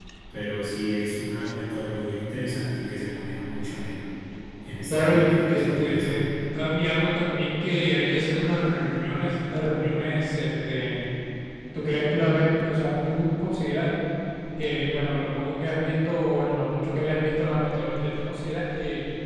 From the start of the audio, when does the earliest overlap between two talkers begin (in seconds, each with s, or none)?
4.9 s